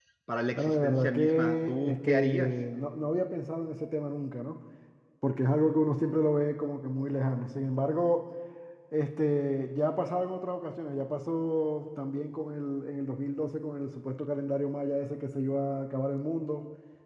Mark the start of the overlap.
0.6 s

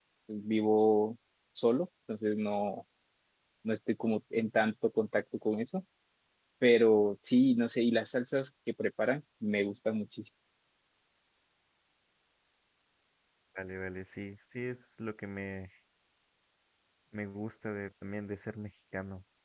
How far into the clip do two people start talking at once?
none

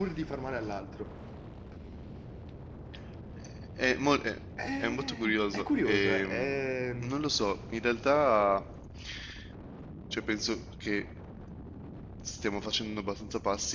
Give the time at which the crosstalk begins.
4.6 s

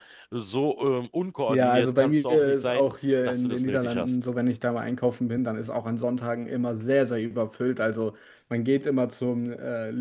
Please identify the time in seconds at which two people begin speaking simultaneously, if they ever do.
1.5 s

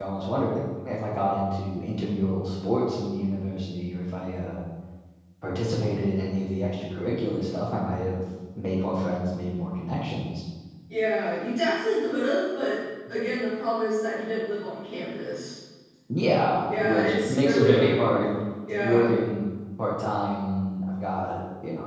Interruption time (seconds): 16.8 s

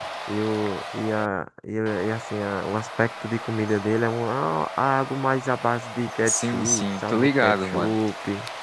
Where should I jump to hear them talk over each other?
6.3 s

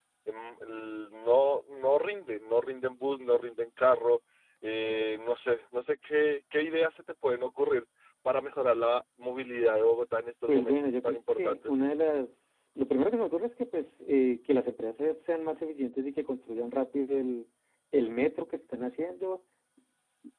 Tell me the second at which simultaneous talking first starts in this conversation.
10.5 s

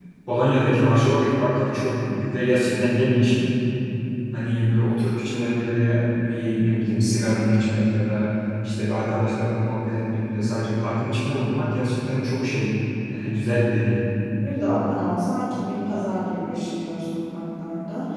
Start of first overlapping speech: none

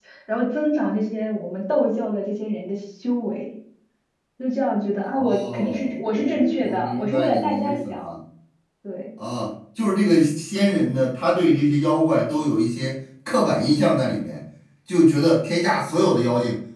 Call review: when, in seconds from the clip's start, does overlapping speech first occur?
5.1 s

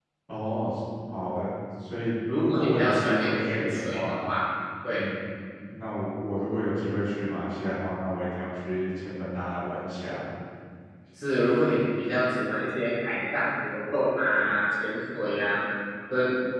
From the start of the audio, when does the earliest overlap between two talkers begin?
2.3 s

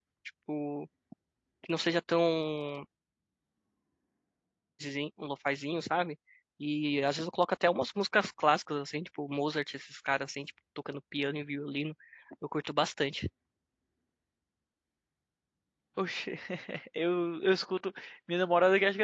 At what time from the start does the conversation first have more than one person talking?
none

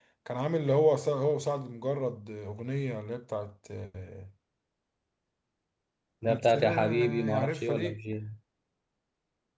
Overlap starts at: 6.3 s

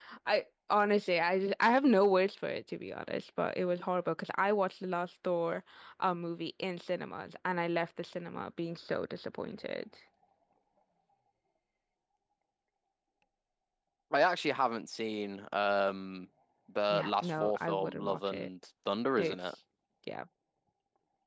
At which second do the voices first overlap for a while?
16.9 s

